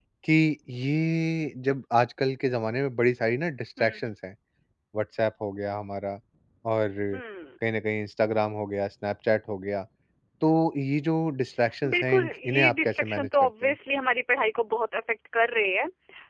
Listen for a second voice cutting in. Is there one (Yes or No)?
Yes